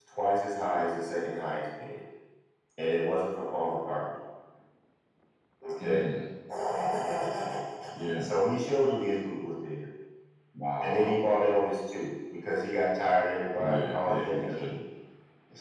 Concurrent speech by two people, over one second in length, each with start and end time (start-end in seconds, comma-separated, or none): 13.6-14.8